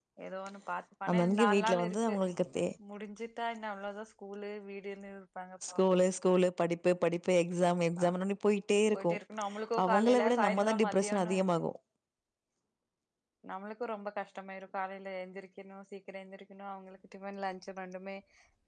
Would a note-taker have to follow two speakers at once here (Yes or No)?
Yes